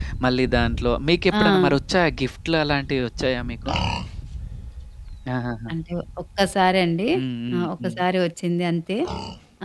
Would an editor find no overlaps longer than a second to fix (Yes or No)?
Yes